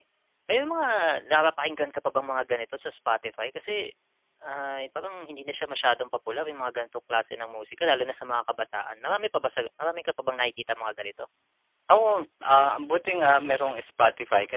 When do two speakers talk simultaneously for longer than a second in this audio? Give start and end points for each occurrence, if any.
none

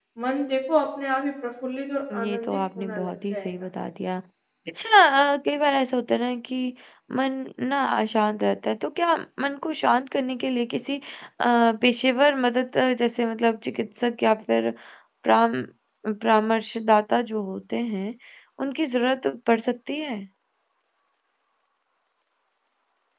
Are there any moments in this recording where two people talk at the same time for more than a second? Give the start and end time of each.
2.2-3.5

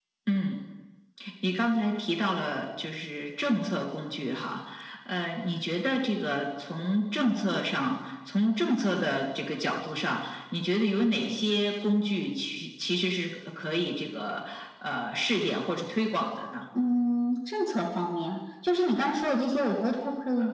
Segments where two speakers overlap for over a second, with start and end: none

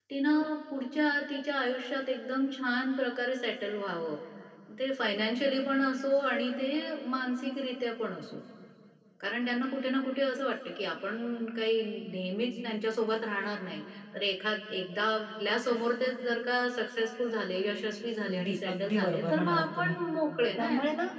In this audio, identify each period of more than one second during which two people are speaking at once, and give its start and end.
18.3-19.9

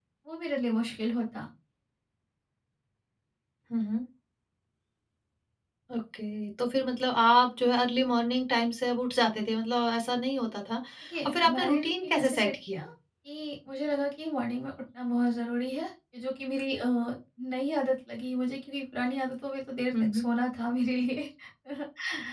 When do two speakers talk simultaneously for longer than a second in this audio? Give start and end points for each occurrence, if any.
11.2-12.8

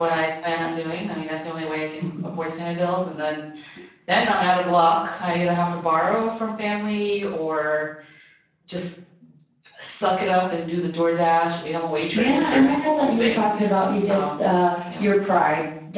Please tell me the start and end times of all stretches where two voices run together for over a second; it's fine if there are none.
12.1-13.4

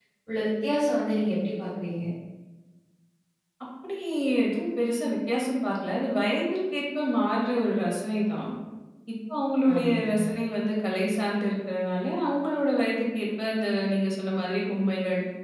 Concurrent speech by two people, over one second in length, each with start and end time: none

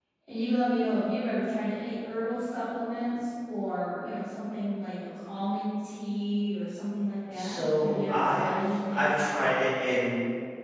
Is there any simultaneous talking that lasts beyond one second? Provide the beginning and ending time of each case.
7.3-9.2

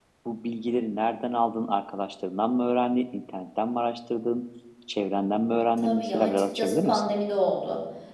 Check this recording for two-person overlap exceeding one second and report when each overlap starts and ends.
5.8-7.0

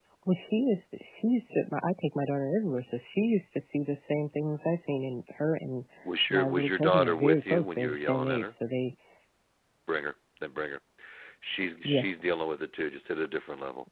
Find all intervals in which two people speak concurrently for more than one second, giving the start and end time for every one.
6.3-8.6

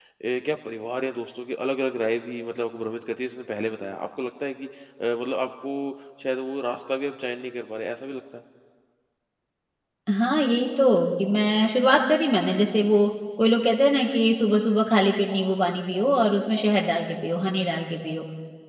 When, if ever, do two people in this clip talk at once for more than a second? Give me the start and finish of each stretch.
none

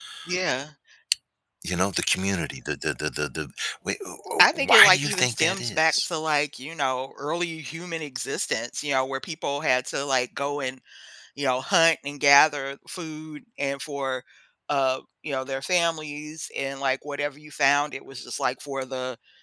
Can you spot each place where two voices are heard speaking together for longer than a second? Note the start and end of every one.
4.4-6.1

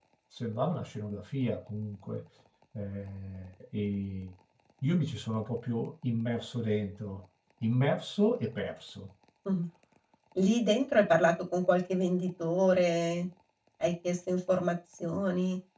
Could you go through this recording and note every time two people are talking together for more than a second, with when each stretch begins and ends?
none

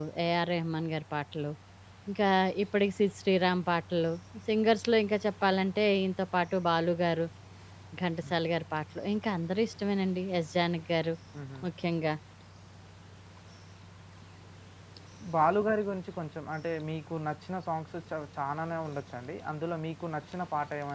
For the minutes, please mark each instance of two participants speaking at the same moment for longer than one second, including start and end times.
none

